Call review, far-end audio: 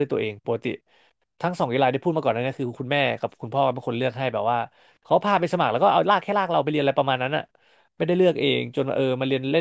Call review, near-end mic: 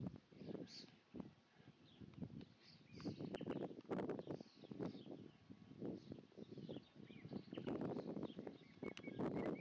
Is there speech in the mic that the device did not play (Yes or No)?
No